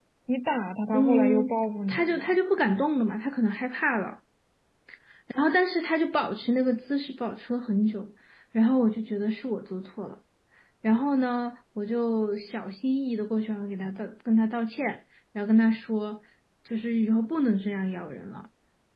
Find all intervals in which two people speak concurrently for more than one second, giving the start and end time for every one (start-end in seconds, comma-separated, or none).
0.9-2.4